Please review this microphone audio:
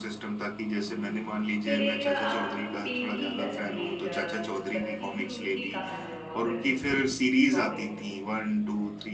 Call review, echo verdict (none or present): present